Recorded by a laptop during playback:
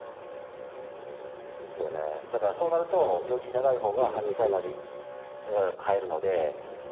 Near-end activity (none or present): present